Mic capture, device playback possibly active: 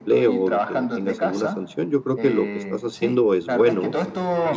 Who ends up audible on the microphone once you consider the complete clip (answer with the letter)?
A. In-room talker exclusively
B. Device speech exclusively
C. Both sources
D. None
C